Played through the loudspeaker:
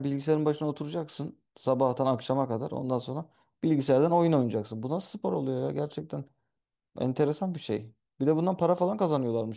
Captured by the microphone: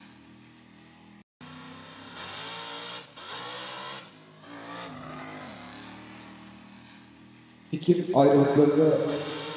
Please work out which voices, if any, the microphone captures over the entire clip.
user only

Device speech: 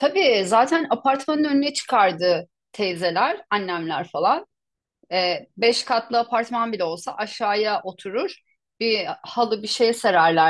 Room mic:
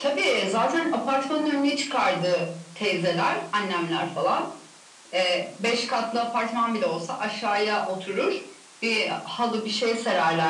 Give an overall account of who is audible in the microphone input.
echo only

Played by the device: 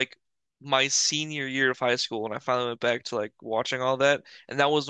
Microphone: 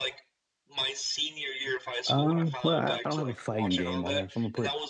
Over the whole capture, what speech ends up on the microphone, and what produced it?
both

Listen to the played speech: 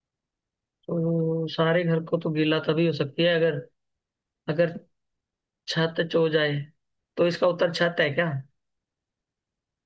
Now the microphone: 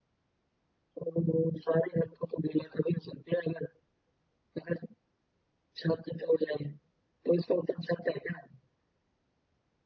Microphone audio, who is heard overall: echo only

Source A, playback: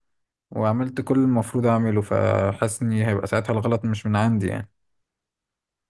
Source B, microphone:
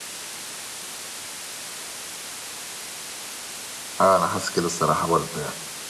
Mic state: user only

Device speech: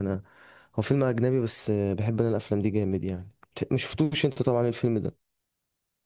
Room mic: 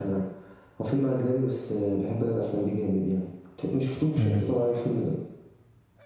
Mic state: both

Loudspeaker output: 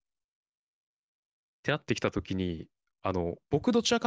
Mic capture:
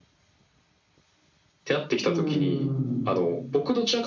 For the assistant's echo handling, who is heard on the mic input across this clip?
both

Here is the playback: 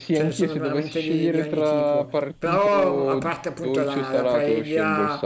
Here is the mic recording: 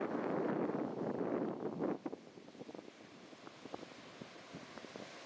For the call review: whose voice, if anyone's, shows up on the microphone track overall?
neither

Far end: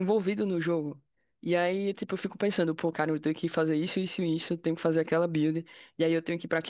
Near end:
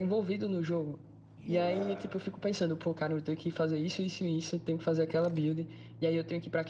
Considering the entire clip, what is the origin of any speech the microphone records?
both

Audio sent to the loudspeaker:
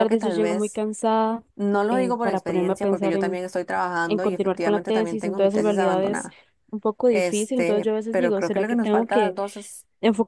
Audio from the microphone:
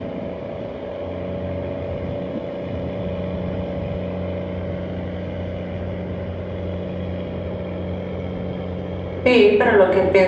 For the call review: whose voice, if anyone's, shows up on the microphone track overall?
user only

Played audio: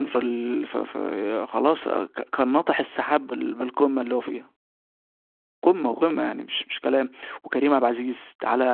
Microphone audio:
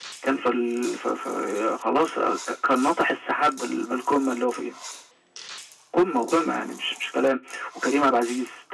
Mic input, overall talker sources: echo only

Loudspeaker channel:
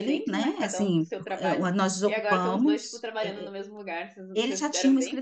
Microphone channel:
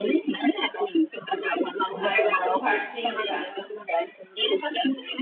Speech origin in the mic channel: both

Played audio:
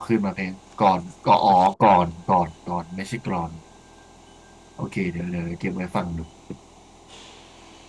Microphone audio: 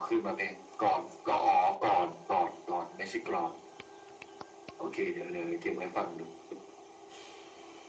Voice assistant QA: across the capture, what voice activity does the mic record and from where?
echo only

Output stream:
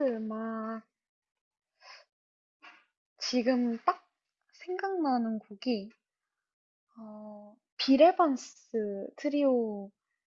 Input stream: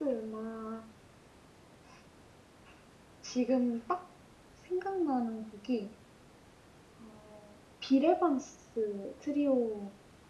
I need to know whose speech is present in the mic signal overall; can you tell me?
echo only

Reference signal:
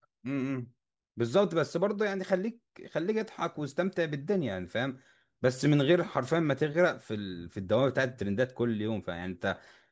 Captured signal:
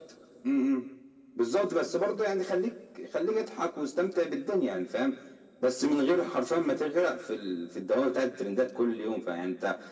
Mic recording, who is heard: echo only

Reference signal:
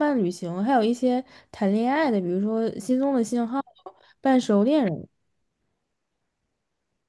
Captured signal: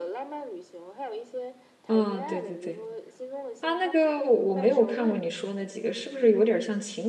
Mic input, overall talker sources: both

